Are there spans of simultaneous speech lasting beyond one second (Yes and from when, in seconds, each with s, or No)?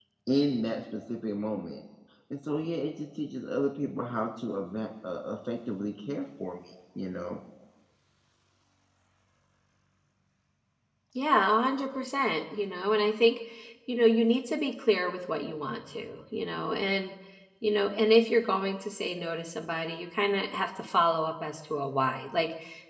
No